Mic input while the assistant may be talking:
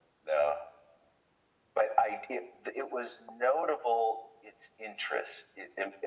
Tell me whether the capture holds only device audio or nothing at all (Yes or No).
Yes